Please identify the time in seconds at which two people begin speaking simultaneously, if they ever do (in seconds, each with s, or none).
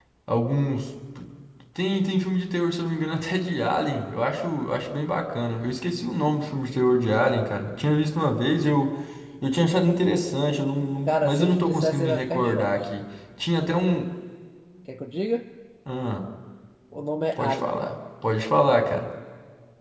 11.1 s